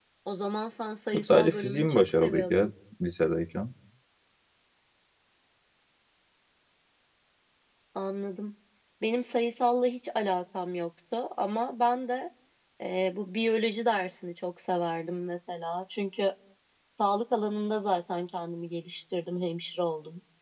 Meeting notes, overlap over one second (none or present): present